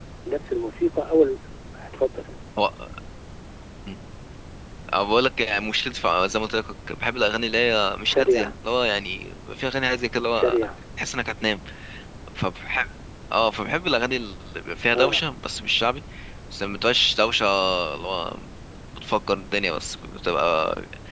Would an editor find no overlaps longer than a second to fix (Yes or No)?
Yes